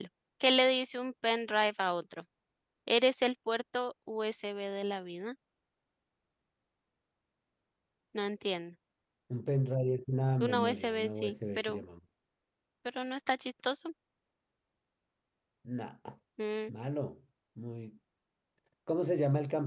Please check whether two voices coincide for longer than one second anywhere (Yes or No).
Yes